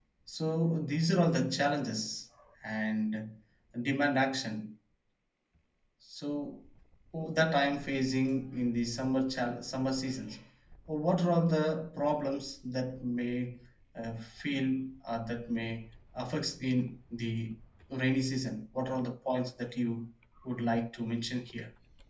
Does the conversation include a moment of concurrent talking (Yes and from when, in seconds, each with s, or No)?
No